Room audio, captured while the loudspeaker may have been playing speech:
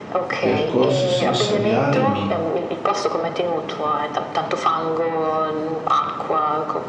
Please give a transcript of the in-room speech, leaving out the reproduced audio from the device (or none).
percorso sensoriale mi